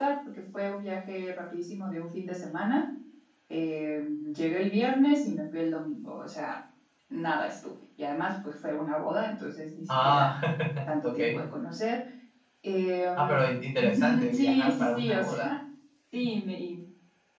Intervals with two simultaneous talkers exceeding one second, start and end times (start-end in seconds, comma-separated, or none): 13.8-15.5